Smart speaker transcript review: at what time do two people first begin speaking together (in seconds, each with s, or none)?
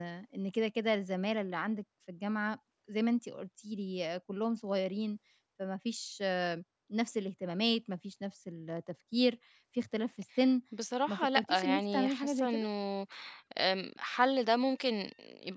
11.1 s